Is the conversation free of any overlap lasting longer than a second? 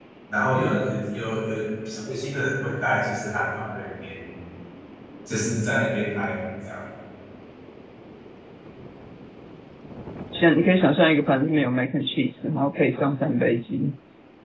Yes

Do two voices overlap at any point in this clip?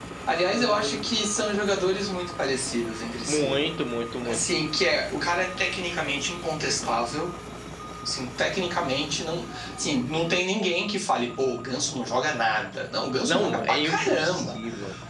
Yes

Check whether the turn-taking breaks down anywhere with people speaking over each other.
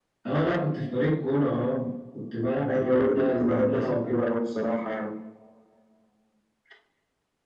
Yes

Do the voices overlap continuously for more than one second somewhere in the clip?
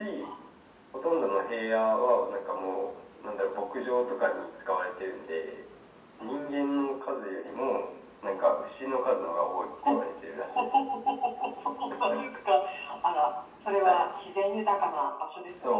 No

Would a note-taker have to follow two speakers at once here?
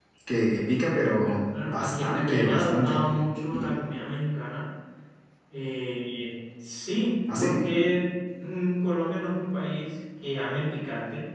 Yes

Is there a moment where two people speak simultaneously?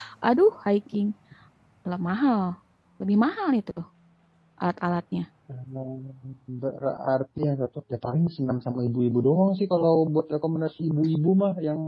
No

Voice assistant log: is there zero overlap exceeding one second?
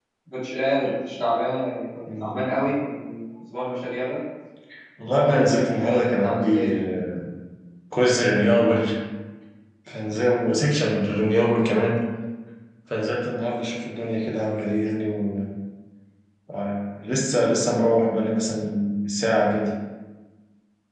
No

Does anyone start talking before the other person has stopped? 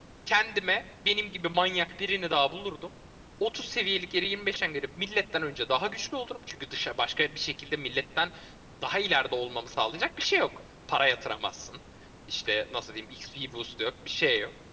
No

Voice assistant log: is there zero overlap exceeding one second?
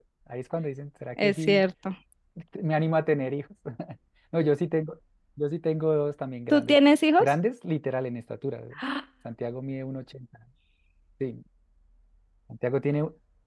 Yes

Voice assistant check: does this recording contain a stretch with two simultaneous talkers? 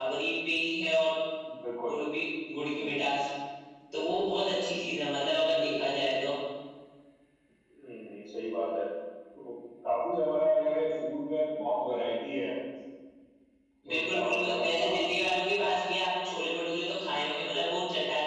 Yes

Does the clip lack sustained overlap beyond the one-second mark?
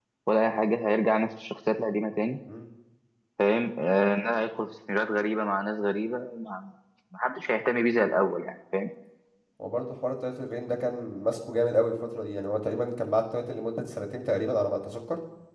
Yes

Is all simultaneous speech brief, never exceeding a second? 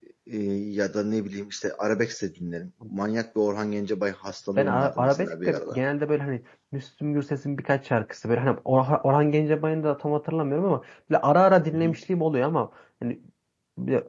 No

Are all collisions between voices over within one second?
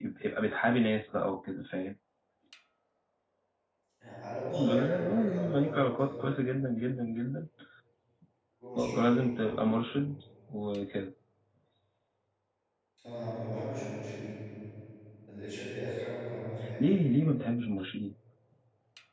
No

